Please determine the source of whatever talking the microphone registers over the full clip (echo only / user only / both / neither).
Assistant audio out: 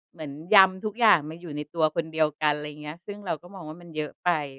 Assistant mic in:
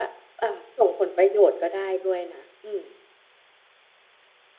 user only